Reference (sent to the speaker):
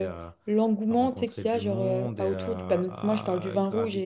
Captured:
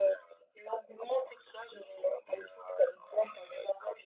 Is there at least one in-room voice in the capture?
No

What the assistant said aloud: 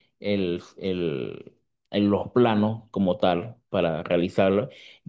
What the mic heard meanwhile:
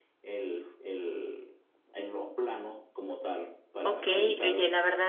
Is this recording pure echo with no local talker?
No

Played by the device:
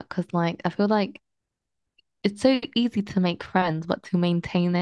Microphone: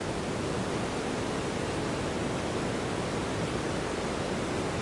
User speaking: No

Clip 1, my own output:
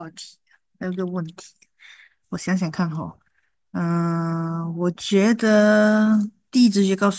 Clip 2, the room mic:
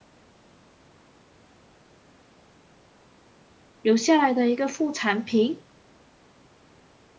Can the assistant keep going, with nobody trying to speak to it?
No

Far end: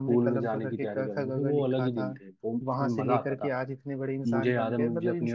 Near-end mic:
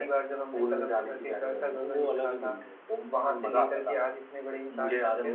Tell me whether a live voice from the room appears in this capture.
No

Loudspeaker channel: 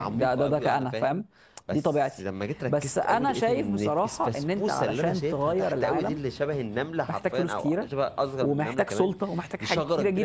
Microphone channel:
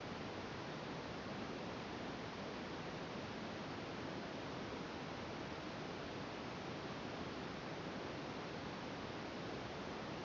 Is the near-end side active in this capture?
No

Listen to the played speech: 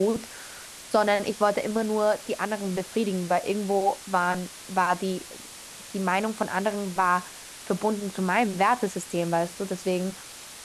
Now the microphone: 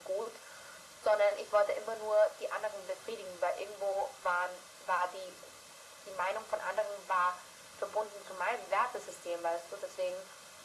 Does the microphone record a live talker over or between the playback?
No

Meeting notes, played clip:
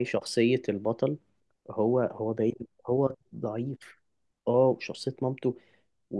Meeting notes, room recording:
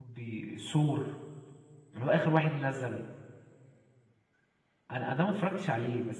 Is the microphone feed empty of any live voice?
No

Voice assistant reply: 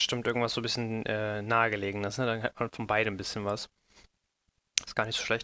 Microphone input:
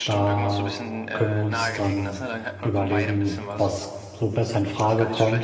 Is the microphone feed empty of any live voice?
No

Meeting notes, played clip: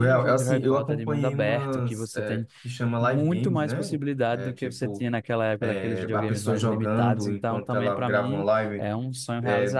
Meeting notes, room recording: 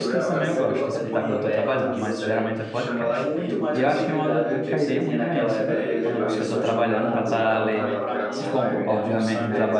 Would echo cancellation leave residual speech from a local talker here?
Yes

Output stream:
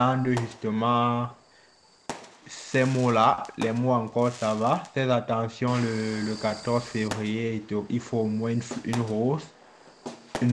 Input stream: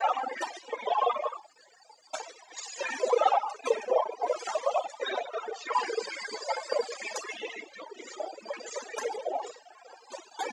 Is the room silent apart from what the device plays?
Yes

